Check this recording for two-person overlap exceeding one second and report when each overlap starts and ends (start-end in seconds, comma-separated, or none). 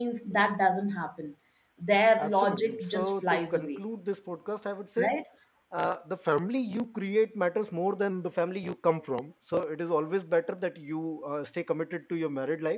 2.2-3.8